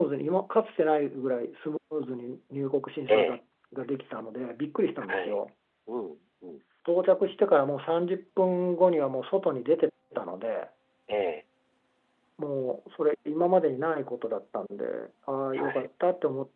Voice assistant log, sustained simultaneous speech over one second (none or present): none